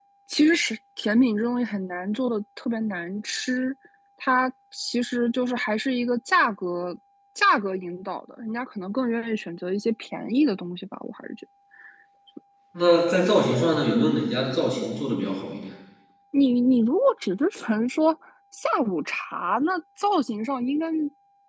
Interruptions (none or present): none